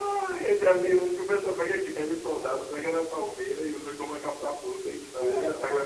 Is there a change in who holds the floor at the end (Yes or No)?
Yes